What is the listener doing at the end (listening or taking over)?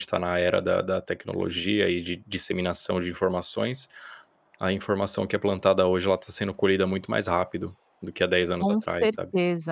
taking over